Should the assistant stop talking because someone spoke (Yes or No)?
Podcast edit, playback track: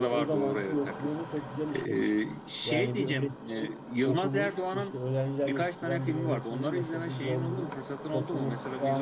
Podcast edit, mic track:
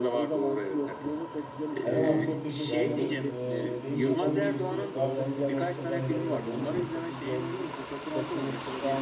Yes